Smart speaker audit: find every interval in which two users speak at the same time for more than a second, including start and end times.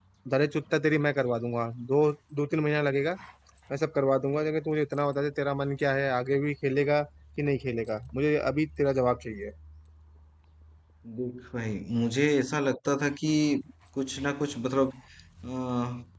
none

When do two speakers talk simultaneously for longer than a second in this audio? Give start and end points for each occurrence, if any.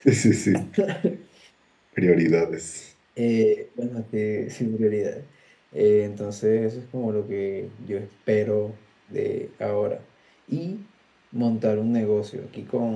none

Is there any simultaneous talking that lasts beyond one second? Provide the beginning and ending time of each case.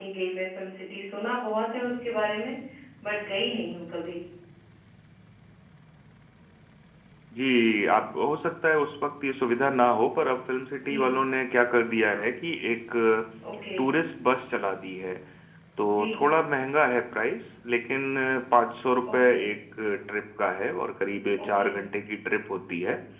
none

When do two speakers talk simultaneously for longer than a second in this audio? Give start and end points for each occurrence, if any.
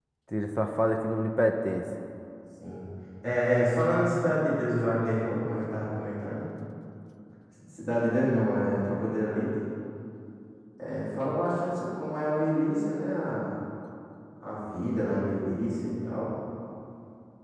none

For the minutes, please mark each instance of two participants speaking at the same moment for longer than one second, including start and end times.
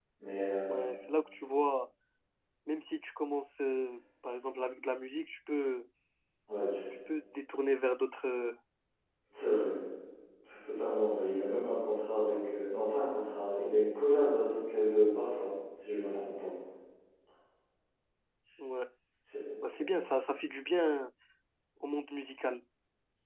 none

